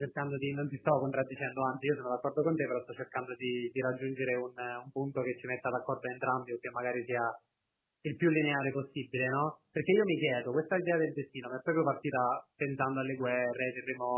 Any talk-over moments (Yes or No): No